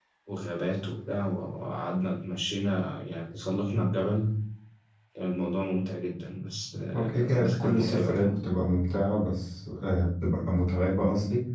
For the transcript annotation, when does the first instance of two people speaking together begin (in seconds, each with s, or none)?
6.9 s